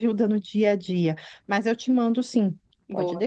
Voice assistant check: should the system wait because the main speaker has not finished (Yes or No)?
No